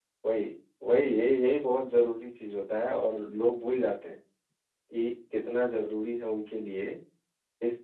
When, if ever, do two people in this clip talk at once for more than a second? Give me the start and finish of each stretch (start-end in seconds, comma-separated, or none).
none